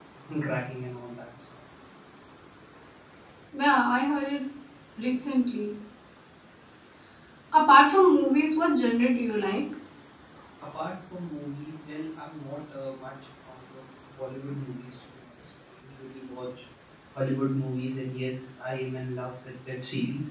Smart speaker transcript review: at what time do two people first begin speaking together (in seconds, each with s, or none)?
none